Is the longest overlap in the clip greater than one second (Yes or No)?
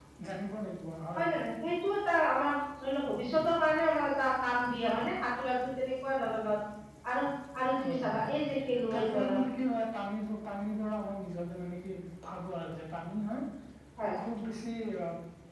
No